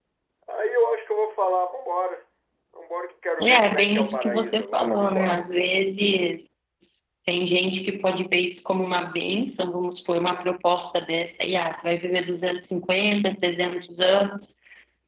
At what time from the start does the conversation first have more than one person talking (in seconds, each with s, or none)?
3.4 s